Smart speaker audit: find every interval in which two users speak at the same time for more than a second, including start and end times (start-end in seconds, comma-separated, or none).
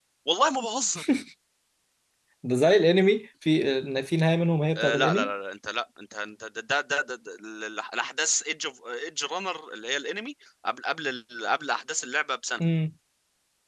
none